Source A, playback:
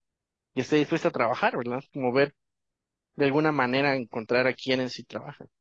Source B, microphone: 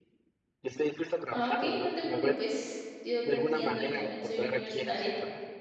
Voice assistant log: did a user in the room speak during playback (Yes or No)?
Yes